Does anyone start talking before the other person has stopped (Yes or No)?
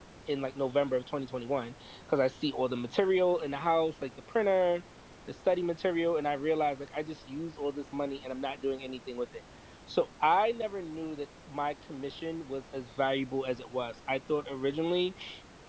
No